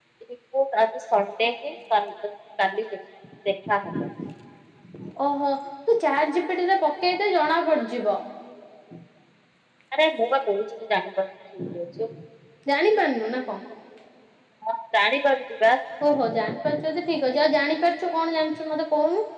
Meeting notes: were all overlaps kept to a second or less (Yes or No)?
Yes